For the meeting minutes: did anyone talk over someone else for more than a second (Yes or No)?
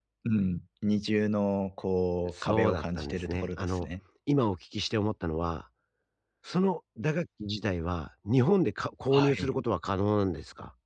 Yes